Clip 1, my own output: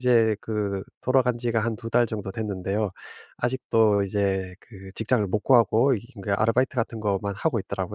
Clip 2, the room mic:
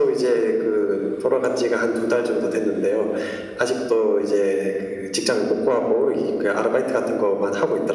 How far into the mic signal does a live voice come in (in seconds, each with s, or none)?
none